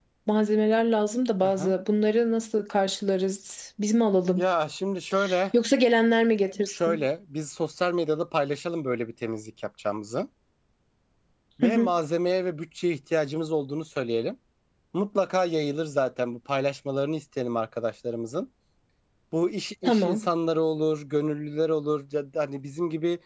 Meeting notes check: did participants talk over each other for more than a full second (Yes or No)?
No